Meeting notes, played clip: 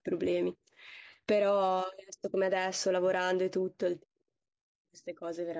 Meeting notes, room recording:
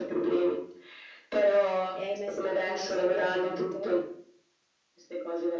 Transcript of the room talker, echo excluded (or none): e hai mai, stu- mai studiato canto?